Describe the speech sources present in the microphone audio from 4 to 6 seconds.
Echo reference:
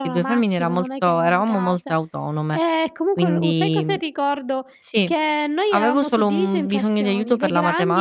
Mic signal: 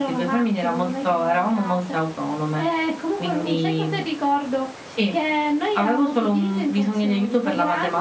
echo only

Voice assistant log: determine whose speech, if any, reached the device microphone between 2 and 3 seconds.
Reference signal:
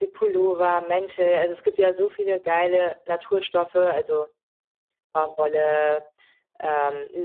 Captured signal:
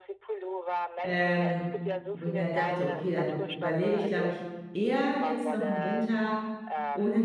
both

